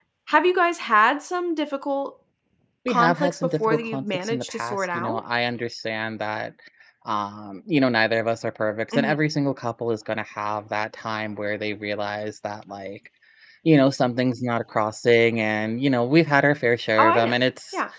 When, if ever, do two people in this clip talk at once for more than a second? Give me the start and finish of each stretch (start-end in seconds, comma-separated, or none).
2.9-5.2